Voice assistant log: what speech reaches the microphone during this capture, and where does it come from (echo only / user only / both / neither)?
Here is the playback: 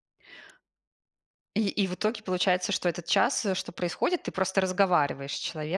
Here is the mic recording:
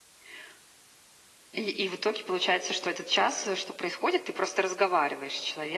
echo only